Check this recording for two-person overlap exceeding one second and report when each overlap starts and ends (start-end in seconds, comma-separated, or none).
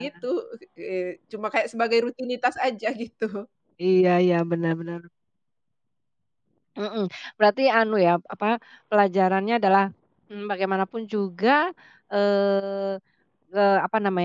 none